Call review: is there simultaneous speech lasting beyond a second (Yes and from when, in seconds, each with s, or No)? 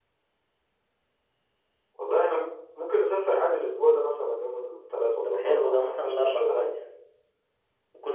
Yes, from 5.2 s